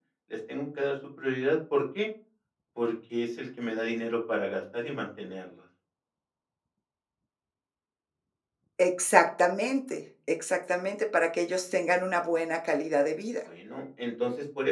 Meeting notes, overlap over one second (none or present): none